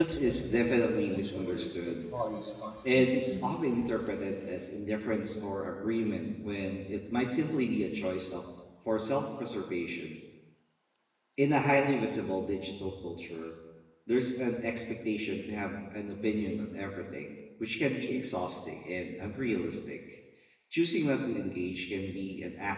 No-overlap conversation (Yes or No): No